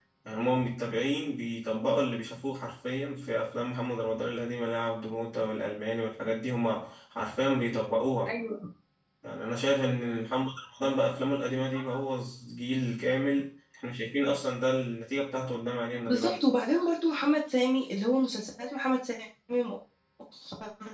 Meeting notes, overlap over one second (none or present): none